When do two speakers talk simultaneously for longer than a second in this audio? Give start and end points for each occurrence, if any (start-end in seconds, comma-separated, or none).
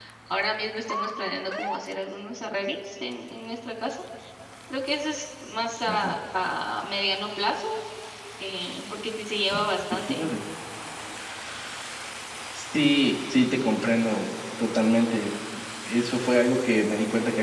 none